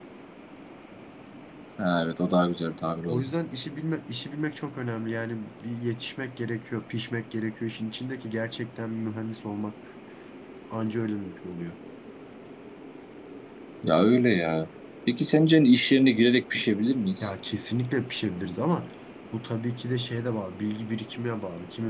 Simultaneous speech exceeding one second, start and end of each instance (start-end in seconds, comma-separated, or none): none